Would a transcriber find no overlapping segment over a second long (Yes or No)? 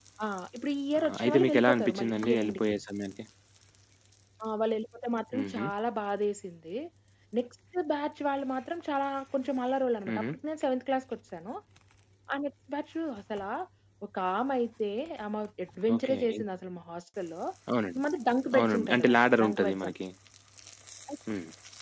No